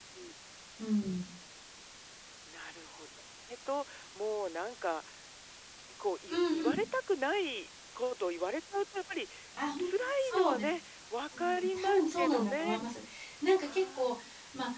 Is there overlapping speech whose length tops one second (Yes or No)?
Yes